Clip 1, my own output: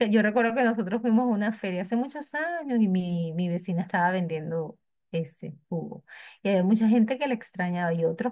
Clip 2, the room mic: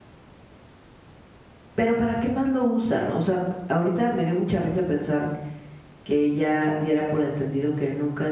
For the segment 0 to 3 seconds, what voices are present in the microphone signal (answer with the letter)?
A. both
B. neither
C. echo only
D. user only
D